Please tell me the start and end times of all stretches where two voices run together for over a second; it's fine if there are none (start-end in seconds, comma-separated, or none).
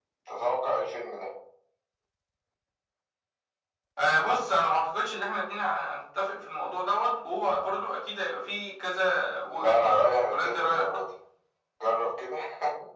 9.6-10.9